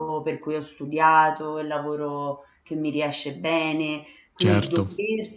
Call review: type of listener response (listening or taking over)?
listening